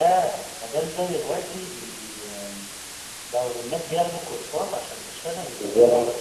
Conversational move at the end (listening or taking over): listening